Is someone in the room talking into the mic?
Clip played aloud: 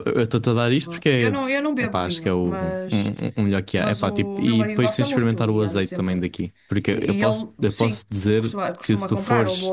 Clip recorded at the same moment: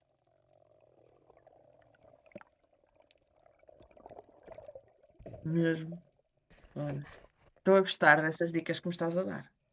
Yes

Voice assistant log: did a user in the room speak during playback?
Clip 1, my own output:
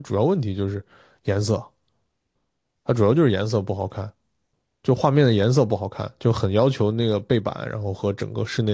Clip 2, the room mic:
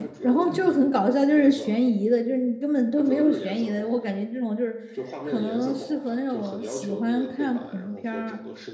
Yes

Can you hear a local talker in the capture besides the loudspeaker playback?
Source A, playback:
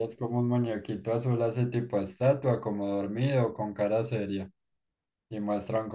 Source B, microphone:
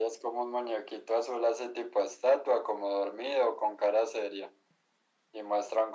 No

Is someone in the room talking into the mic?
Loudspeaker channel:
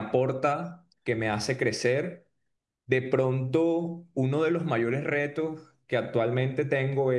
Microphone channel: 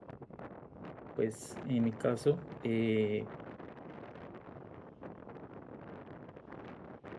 Yes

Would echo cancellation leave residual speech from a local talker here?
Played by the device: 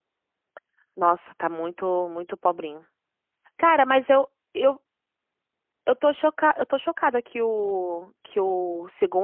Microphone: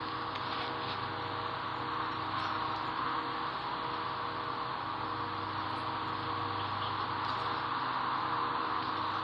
No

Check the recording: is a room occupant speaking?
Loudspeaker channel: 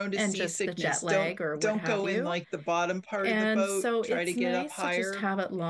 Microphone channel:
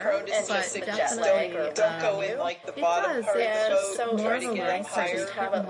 Yes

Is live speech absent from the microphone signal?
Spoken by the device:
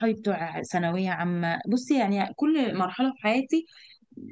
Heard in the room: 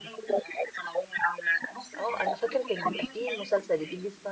No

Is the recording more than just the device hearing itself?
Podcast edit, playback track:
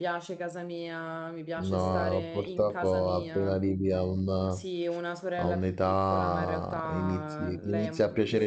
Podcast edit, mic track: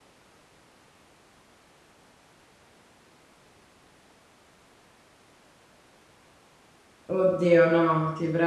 Yes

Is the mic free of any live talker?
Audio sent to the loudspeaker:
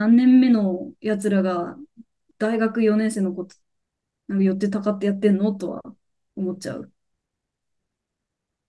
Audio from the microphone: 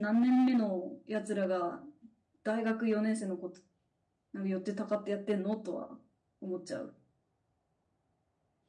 Yes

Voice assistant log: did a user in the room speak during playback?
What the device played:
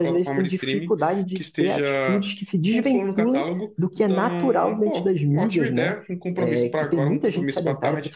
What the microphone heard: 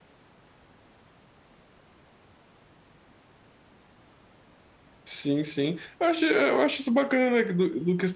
Yes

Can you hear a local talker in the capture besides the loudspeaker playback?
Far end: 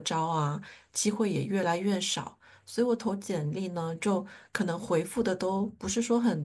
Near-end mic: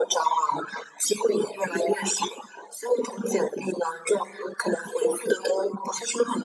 No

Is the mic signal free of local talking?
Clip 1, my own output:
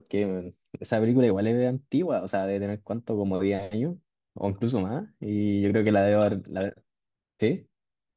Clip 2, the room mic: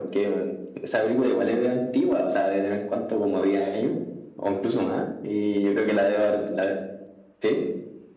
Yes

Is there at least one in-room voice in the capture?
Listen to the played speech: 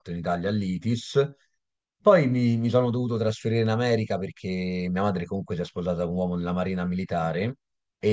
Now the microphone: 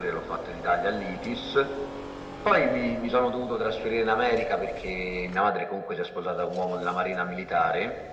No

